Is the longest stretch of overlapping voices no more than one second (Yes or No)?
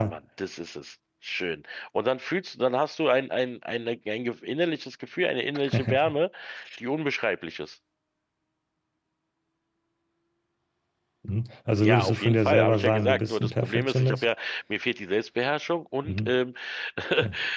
No